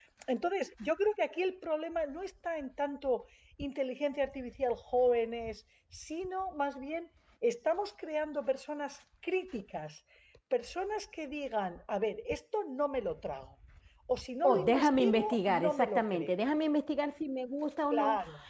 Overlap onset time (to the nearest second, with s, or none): 14 s